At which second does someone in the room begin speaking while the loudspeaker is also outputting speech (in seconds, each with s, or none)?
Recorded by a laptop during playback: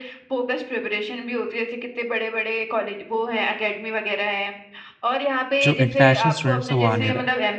5.6 s